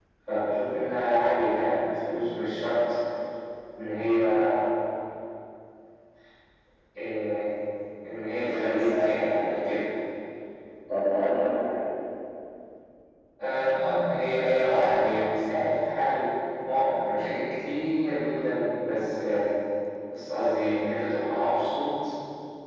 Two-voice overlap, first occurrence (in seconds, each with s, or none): 8.4 s